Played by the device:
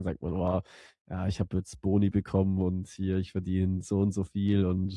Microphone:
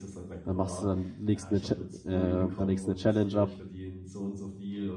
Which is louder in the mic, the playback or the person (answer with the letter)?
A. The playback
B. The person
B